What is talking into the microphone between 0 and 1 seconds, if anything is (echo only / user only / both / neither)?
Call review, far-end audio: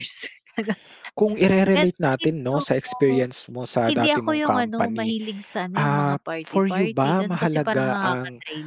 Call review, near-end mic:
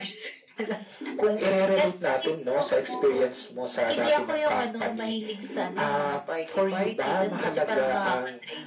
echo only